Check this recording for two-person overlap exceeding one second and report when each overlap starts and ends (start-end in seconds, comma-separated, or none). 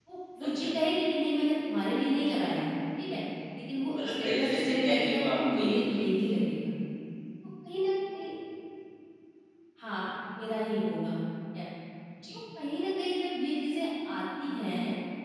4.0-6.0